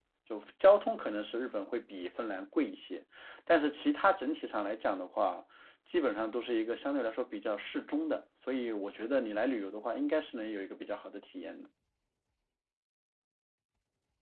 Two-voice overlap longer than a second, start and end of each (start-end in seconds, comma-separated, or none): none